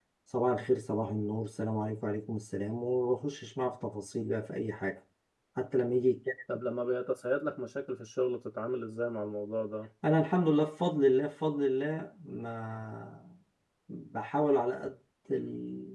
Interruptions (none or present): none